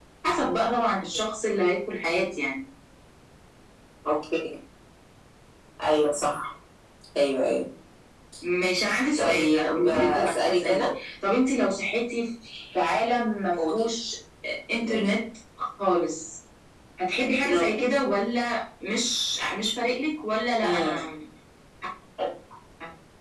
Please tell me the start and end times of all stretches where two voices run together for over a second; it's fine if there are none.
9.2-10.9

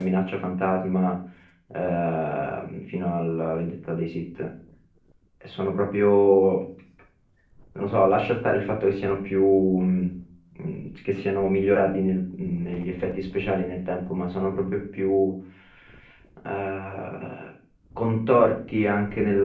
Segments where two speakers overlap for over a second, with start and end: none

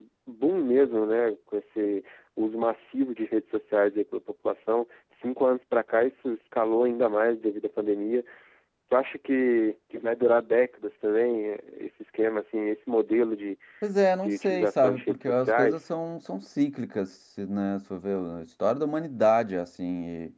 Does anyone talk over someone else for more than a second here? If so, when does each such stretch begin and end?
14.2-15.8

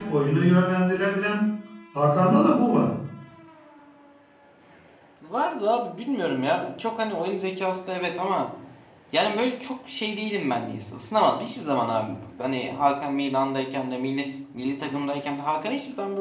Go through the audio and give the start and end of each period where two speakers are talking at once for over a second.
none

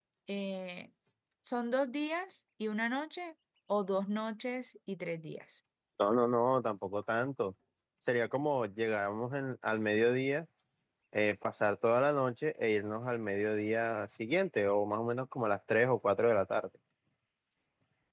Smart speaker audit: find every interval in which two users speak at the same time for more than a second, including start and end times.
none

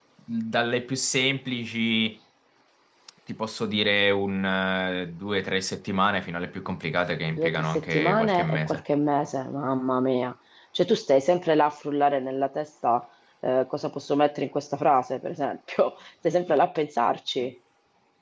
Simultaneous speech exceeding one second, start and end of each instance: 7.3-8.8

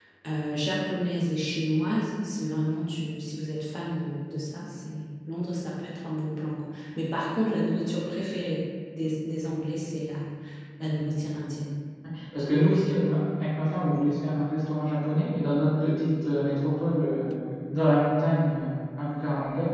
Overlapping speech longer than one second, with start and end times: none

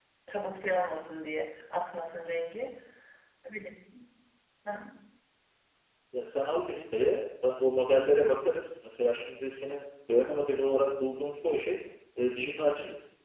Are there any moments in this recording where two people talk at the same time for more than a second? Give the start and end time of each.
none

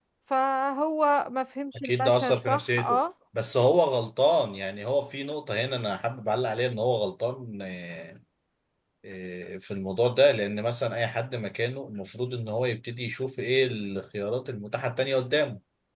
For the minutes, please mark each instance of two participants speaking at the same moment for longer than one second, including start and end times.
1.8-3.0

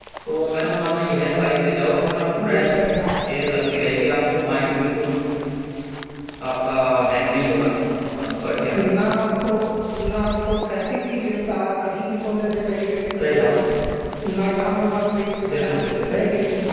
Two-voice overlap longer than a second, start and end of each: none

